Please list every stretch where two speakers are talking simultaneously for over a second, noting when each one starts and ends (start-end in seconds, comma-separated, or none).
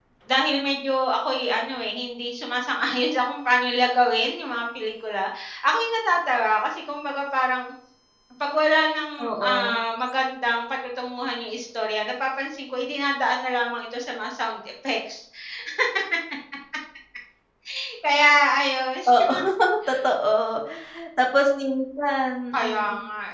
none